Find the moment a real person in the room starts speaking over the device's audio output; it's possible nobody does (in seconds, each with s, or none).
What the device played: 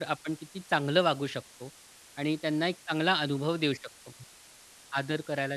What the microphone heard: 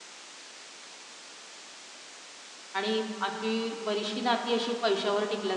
2.7 s